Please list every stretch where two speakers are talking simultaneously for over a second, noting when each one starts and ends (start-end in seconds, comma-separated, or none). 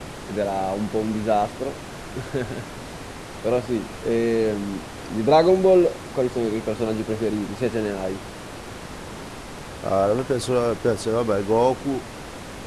none